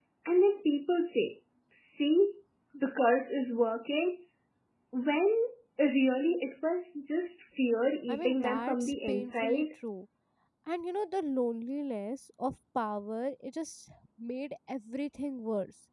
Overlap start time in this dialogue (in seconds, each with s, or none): 8.1 s